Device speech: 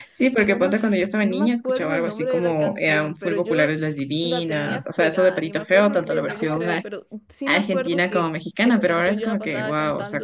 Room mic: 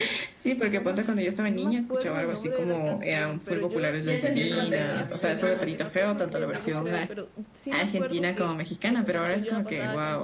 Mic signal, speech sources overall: both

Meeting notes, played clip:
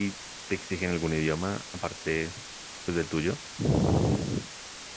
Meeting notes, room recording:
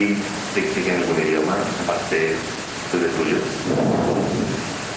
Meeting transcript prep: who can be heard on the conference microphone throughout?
echo only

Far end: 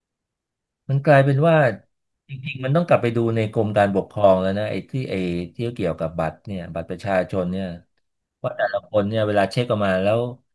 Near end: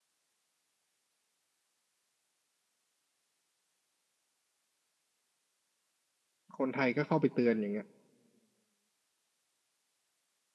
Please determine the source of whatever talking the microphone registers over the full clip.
user only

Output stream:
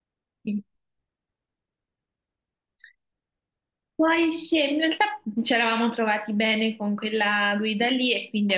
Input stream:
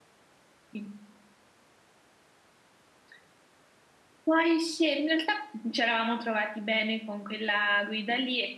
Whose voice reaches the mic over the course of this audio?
echo only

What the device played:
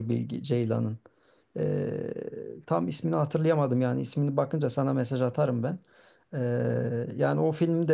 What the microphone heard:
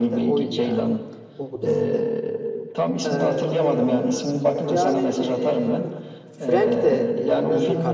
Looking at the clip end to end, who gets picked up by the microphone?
both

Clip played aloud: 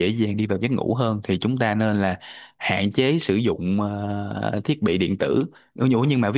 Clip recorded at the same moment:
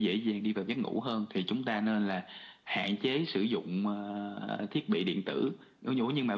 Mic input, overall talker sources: echo only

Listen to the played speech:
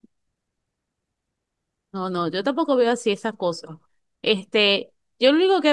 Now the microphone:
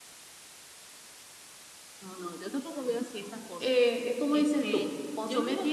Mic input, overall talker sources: both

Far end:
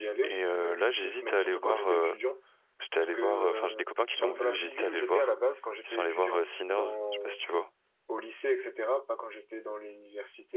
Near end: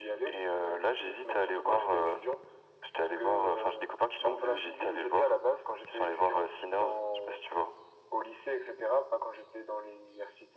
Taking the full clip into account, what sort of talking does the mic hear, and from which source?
echo only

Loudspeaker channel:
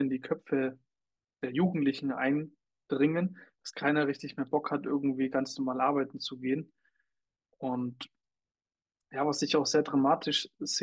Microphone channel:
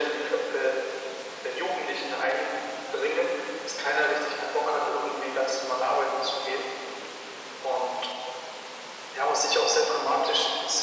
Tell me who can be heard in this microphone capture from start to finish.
echo only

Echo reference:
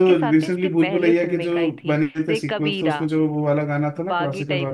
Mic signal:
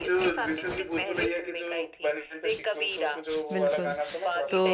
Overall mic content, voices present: both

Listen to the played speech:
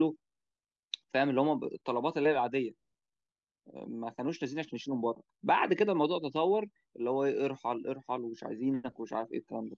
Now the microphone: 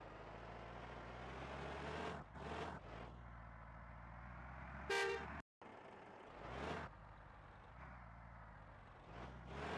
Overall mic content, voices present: neither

